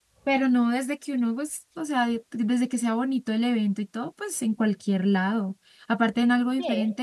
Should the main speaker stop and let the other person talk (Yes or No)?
No